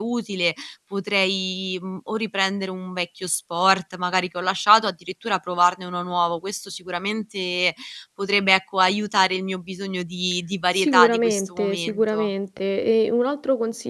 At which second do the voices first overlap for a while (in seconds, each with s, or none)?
10.8 s